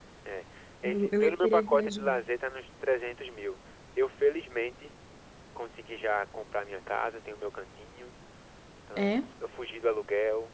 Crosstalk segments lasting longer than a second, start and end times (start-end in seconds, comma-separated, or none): 0.9-2.2